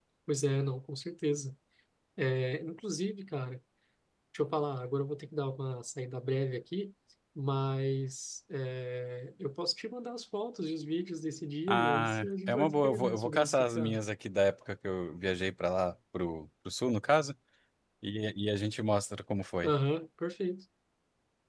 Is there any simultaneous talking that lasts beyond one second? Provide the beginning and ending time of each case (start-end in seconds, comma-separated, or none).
11.7-14.0